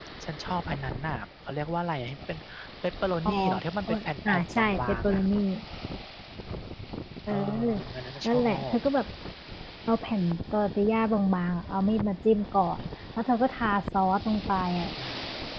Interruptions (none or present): present